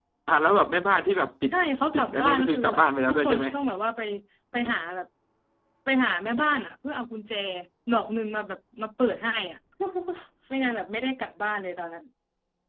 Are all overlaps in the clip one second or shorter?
No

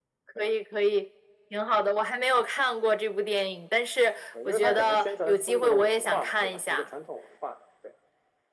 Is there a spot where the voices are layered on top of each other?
Yes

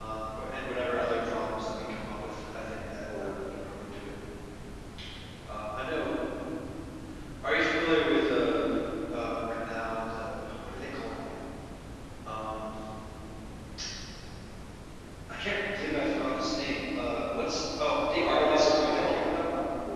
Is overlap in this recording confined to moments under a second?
No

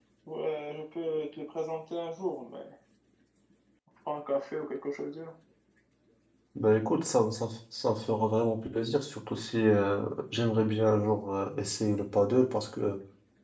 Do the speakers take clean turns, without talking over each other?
Yes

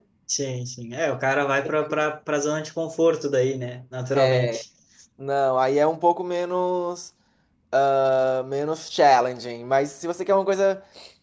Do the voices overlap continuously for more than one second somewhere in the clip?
No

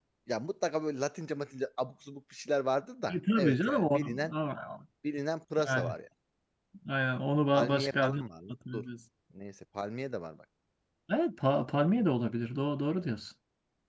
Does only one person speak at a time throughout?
No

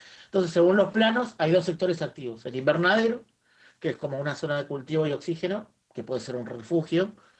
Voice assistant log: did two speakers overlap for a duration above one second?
No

